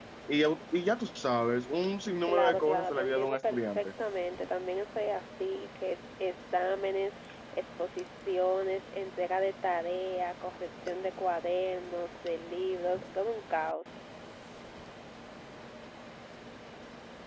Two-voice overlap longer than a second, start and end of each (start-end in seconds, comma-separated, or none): 2.2-3.9